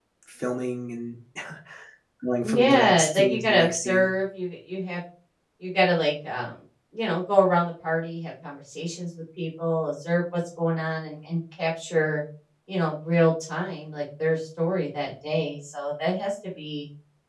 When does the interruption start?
2.4 s

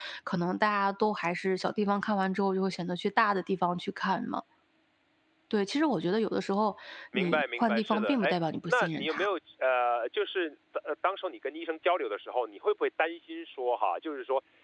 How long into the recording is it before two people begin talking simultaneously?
7.1 s

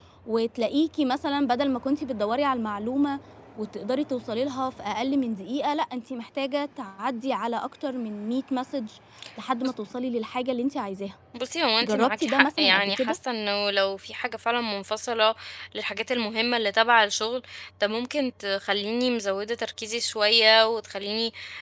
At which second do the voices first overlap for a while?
11.8 s

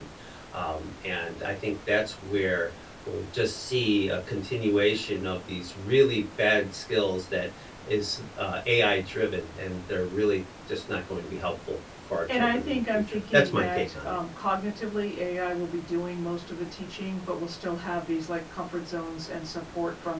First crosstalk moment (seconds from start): 12.3 s

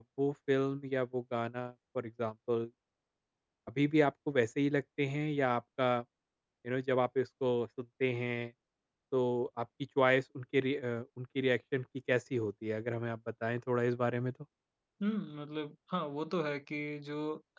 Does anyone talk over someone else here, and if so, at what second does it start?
none

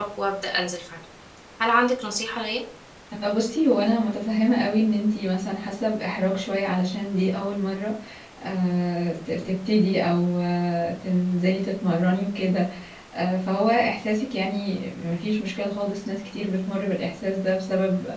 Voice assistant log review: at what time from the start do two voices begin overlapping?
none

